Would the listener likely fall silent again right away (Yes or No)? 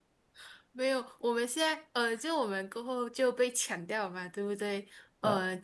Yes